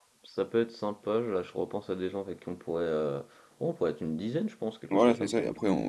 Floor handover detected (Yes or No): Yes